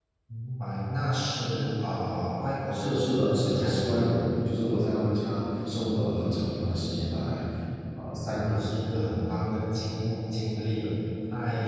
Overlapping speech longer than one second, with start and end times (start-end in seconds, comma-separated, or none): 2.7-4.0